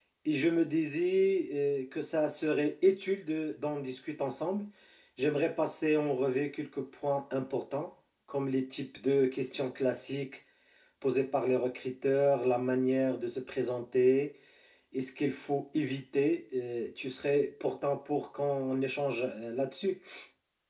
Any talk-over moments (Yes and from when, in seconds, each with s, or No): No